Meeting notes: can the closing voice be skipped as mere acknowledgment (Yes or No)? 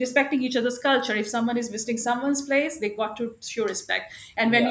No